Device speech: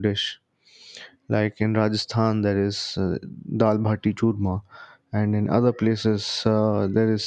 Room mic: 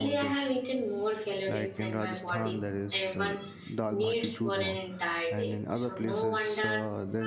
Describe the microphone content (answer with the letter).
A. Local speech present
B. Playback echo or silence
A